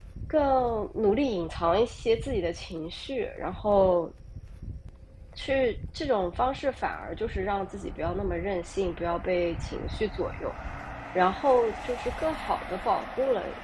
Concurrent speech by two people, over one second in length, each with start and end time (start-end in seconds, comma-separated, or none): none